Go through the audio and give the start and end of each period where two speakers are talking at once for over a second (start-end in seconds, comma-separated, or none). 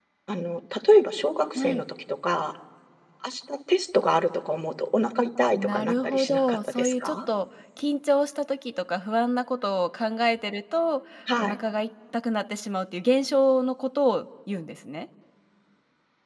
5.5-7.2